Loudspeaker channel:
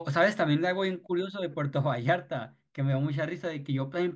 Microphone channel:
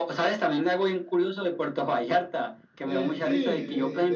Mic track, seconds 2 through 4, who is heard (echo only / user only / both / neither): both